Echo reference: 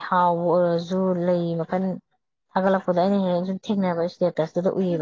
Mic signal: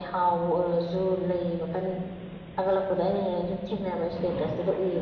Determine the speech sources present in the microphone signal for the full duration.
echo only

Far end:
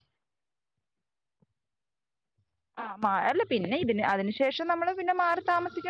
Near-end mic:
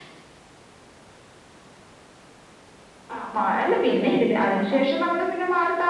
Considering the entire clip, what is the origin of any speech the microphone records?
both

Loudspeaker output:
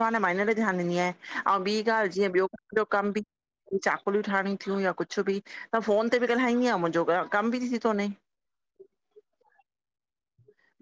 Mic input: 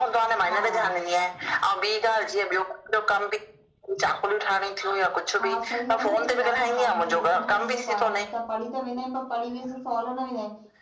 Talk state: both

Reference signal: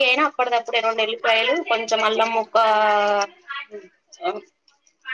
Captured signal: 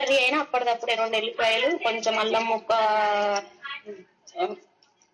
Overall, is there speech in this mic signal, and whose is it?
echo only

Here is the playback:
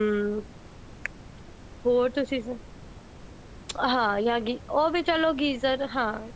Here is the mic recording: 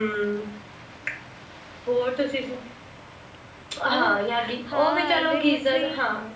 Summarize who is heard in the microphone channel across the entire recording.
both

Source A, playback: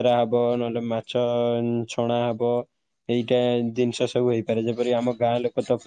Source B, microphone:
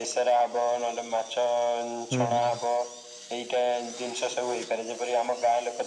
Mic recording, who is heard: both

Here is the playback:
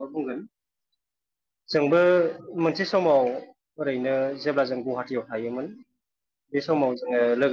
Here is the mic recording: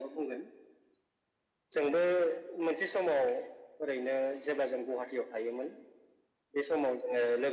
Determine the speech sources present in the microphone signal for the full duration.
echo only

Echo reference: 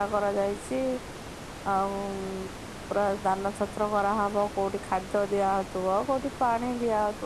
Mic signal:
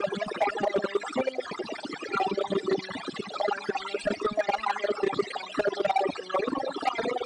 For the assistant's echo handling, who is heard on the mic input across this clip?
echo only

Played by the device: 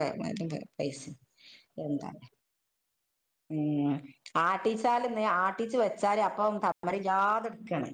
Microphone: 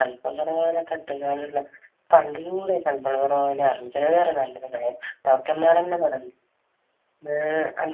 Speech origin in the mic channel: user only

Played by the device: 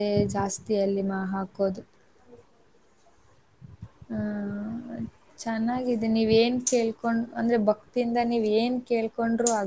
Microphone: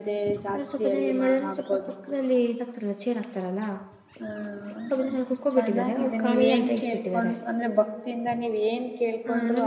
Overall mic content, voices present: both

